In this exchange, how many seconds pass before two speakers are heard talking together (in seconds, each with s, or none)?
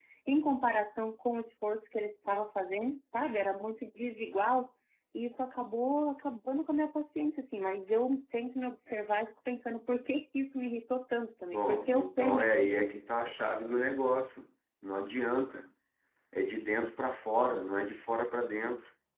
11.5 s